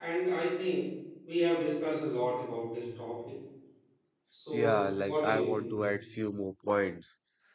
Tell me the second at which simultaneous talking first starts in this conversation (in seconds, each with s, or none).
4.5 s